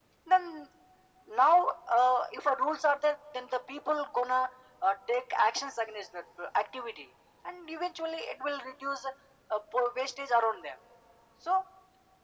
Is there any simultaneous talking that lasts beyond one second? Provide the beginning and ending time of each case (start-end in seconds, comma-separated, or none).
none